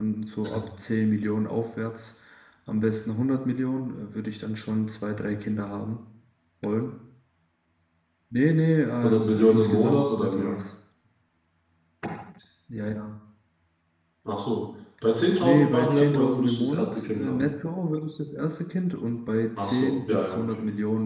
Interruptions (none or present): present